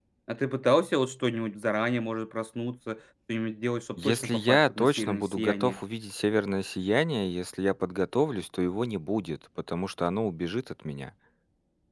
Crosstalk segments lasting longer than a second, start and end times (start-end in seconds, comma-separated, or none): 4.0-5.8